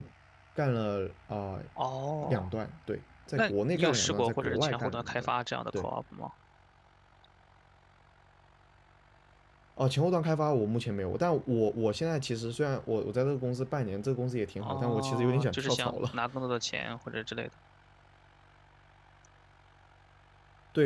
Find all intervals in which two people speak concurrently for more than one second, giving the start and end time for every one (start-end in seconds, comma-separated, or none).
3.3-5.3, 14.6-16.2